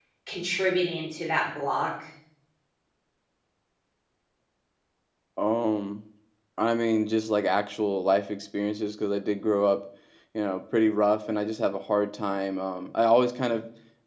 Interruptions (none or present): none